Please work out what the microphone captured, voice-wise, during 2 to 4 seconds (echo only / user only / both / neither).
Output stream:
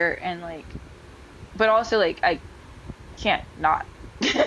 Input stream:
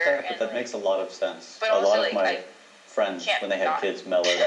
both